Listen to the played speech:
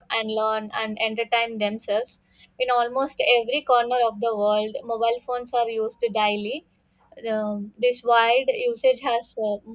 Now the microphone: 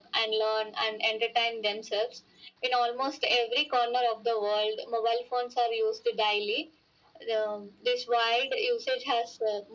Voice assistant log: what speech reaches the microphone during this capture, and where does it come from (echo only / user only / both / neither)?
echo only